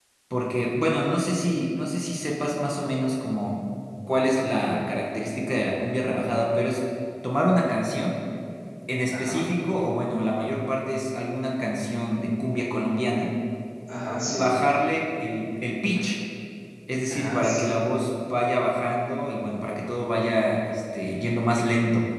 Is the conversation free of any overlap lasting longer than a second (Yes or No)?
Yes